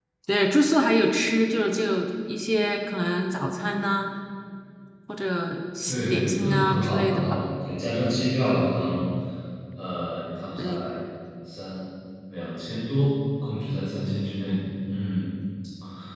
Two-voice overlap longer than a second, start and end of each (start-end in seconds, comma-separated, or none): 5.8-7.4